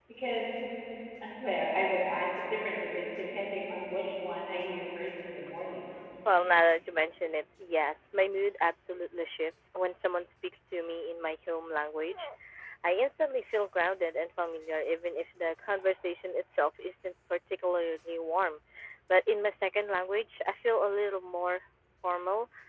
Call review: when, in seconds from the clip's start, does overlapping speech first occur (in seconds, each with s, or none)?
none